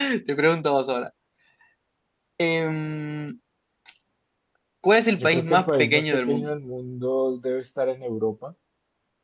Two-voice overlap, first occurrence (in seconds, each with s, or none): 5.2 s